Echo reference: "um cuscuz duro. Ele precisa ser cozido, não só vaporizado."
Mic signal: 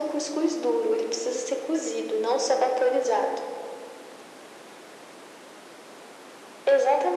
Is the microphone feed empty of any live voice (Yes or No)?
Yes